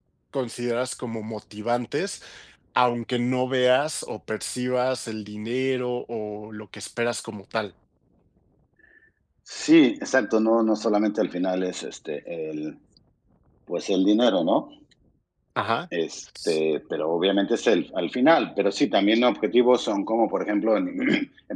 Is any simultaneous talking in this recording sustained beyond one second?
No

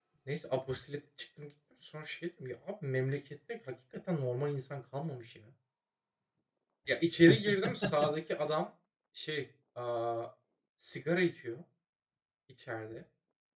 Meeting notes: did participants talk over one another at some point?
No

